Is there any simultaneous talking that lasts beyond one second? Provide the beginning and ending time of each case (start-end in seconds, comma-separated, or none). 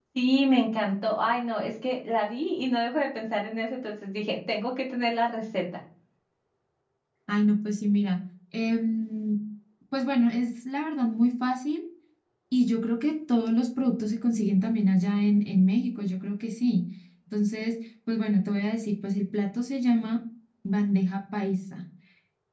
none